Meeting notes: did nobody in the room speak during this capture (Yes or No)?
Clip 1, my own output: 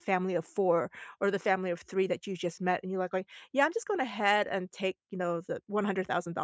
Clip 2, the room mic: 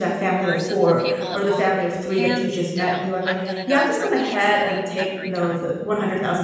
No